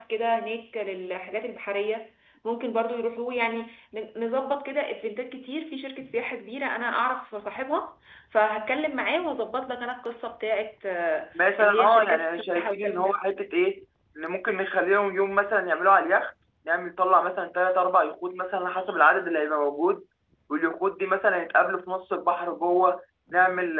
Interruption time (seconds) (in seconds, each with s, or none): 11.3 s